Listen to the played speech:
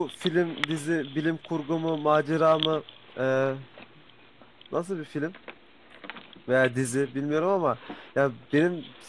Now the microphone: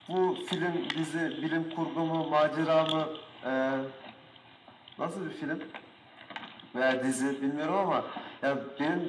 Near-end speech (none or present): none